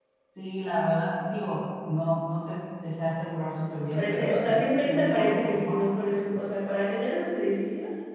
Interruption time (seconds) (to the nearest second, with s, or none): 4 s